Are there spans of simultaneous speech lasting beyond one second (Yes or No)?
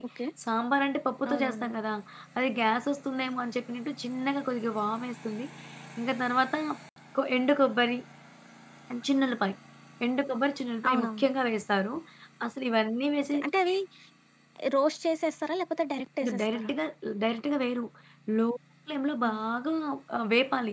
No